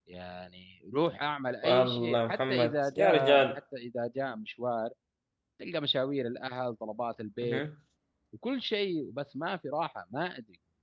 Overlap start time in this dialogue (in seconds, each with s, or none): 1.6 s